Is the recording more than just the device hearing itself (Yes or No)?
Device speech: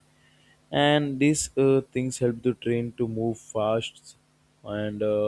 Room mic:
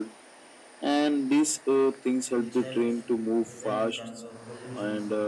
Yes